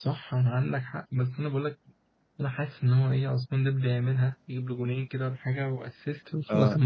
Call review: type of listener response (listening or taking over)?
taking over